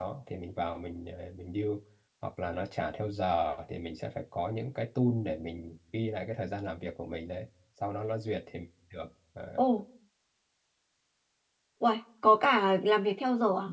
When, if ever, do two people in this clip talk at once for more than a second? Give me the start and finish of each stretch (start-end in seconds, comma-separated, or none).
none